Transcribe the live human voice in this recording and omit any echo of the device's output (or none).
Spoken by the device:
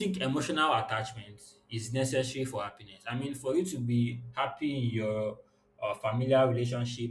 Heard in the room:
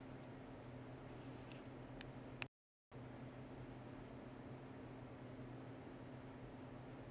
none